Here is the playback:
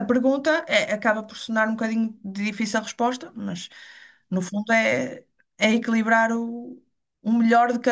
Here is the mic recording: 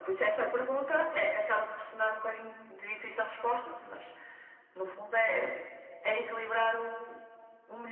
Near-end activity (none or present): none